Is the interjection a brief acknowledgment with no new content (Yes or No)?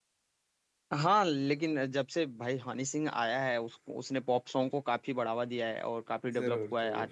Yes